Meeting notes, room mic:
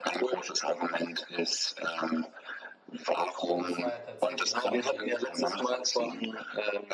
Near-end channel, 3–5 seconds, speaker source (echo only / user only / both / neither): both